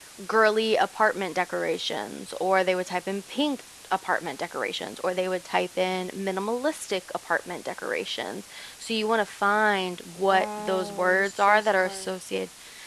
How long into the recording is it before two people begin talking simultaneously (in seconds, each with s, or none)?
10.2 s